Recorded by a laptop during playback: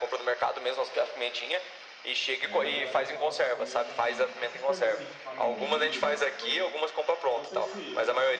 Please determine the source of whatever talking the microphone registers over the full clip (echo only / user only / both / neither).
both